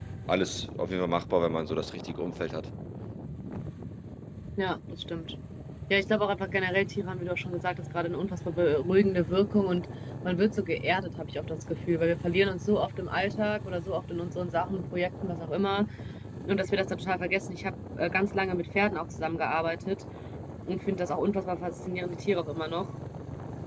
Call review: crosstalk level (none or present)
none